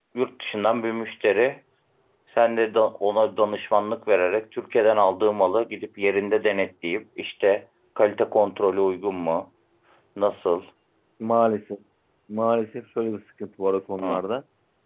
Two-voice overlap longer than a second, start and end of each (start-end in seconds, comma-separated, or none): none